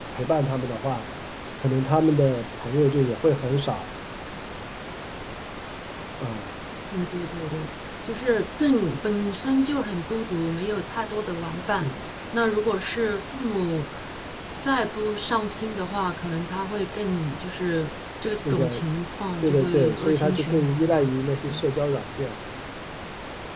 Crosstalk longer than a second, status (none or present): present